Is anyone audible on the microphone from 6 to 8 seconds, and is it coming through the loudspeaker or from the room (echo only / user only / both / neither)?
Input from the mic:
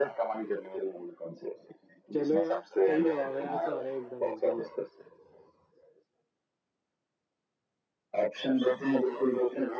neither